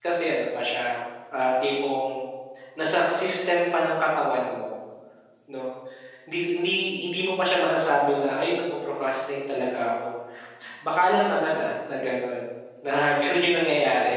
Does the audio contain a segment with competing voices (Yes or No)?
No